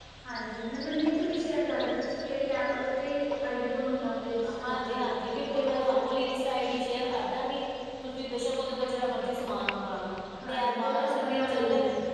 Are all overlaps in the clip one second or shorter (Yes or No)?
No